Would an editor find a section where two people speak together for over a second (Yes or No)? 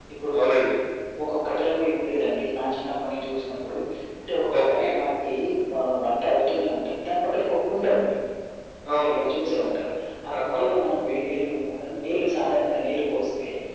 No